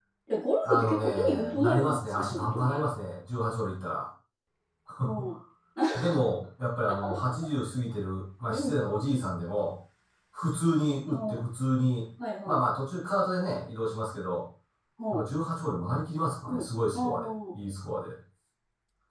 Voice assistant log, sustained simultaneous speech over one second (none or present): present